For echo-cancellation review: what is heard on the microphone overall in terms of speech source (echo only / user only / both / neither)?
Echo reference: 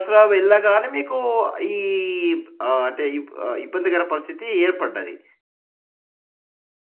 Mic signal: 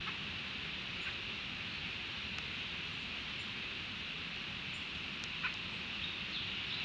neither